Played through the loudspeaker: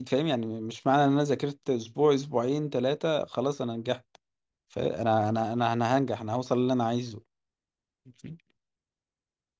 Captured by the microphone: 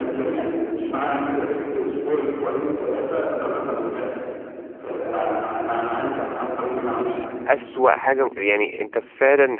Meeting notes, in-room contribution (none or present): present